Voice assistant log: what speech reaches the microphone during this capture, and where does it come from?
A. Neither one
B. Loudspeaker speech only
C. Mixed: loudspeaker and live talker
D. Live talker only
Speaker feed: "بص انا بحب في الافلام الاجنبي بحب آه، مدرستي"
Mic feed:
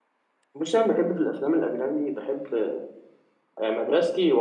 B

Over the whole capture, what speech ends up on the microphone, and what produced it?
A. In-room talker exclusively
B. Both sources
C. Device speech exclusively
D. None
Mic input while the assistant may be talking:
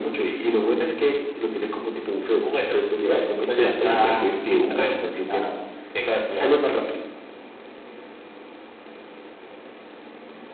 C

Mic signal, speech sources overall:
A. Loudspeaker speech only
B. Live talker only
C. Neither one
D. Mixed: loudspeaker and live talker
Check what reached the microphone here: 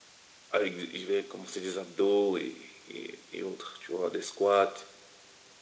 A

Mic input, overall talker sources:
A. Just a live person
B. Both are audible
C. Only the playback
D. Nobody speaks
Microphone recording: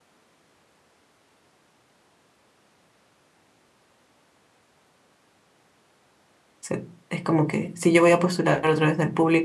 A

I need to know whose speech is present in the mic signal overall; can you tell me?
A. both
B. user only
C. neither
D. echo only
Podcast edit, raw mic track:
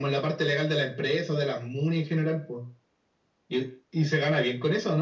D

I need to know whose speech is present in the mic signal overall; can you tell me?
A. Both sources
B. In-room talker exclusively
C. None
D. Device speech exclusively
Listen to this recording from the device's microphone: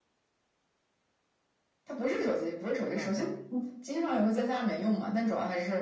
A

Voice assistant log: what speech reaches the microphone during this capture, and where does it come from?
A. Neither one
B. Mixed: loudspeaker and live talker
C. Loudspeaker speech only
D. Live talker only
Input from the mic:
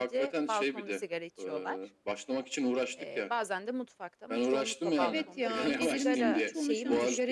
B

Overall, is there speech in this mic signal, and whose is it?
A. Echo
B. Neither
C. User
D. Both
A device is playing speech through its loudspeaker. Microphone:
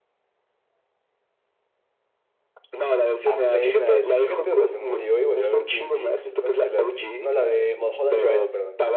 D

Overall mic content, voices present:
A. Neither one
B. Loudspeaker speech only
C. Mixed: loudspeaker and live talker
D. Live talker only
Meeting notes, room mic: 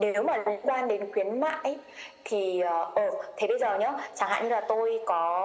B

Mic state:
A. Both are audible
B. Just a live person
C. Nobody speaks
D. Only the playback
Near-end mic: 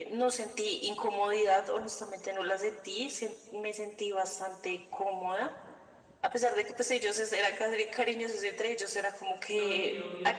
A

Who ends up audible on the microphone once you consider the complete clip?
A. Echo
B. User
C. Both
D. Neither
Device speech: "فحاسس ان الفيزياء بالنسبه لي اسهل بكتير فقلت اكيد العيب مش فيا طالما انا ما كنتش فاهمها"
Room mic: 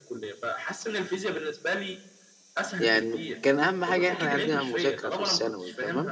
C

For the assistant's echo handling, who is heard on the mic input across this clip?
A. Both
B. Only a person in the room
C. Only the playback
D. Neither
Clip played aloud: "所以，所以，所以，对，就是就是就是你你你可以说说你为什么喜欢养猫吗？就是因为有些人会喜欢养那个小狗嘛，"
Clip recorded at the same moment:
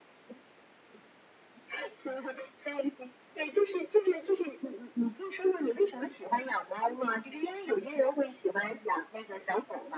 C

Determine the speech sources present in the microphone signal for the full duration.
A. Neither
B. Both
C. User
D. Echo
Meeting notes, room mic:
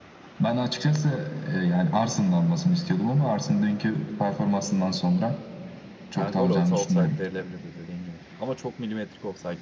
B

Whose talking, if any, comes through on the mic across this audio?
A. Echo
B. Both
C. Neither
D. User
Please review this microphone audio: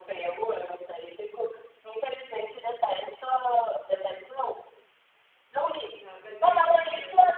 B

